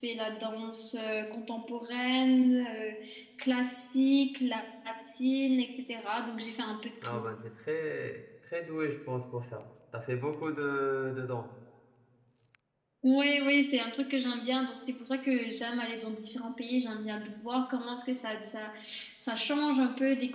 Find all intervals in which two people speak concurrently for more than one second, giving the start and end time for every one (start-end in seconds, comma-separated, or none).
none